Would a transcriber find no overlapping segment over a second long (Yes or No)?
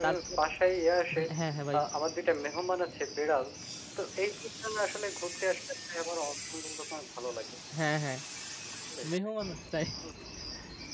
Yes